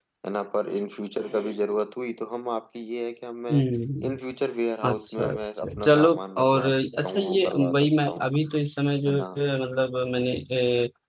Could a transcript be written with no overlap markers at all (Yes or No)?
No